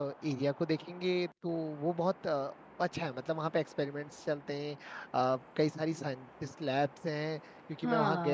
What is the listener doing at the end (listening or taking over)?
taking over